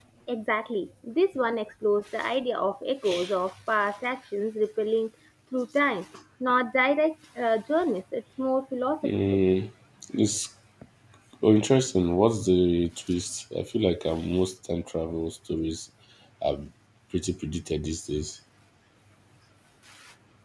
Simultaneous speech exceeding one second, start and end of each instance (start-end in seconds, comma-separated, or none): none